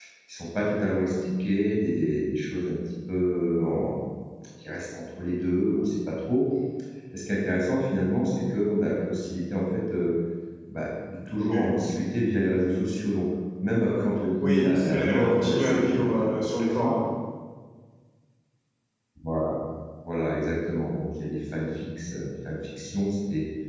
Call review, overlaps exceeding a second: present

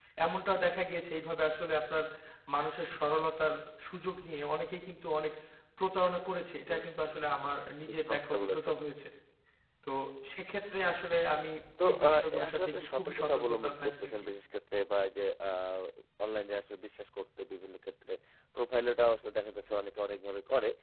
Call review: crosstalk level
present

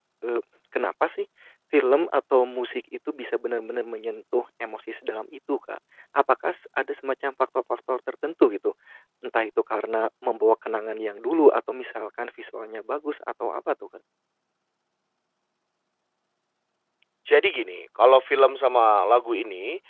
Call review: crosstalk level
none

